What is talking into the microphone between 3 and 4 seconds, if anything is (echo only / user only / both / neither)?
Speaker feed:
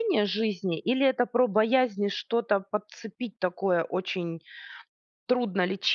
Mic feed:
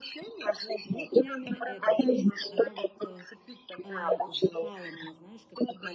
both